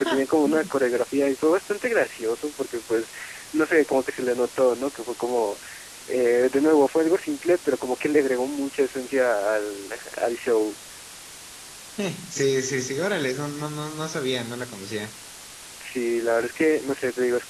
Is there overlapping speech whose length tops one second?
No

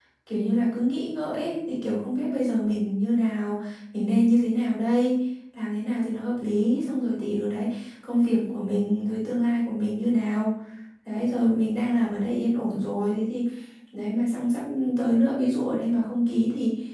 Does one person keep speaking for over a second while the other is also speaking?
No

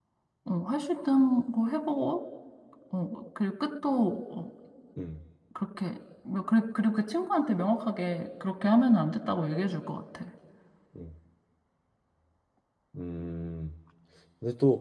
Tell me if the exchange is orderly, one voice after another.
Yes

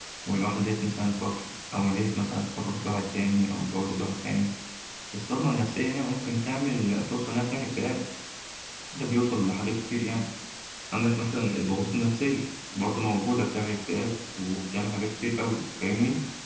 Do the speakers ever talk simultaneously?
No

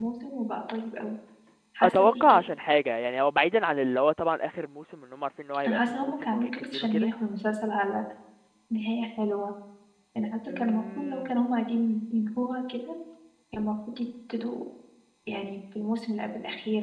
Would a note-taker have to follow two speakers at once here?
Yes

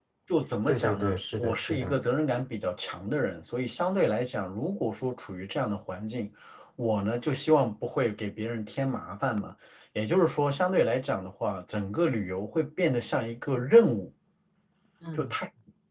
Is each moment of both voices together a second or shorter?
No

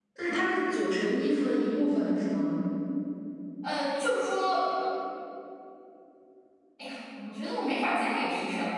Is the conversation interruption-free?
Yes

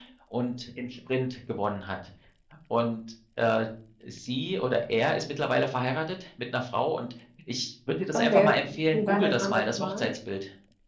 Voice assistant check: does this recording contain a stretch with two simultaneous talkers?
Yes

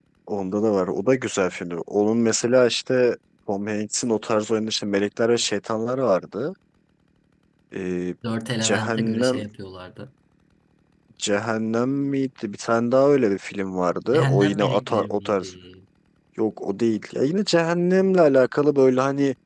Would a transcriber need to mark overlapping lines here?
Yes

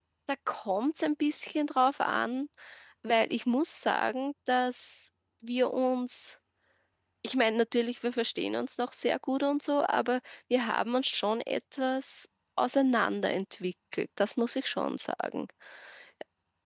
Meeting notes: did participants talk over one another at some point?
No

